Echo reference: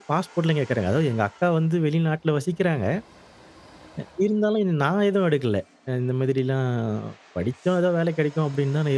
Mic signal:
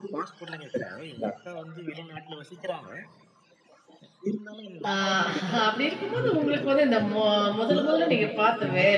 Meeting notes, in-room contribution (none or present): present